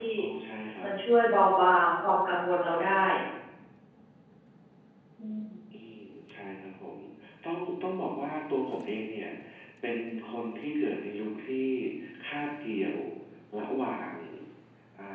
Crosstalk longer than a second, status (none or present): none